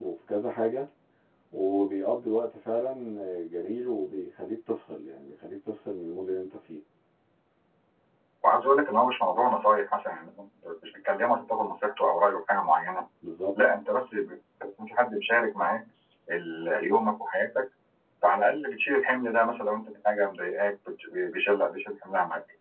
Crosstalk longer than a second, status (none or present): none